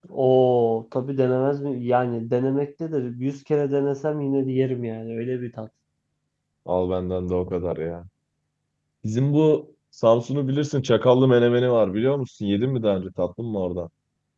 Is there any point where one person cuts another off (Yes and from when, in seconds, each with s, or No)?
No